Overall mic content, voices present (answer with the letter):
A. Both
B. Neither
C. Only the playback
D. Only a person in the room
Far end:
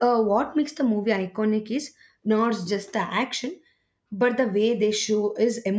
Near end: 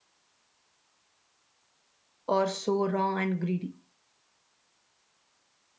D